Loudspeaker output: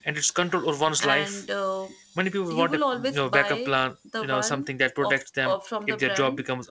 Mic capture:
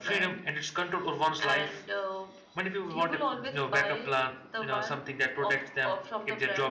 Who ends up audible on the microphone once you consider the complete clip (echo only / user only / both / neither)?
echo only